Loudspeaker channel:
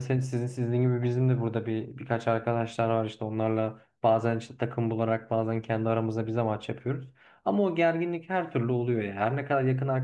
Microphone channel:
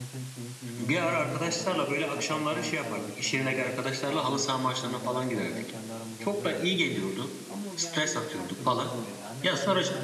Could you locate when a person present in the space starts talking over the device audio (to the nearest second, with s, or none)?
1 s